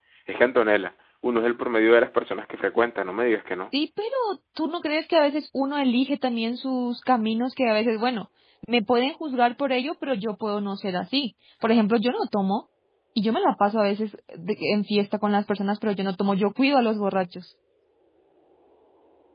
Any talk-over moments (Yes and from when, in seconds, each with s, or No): No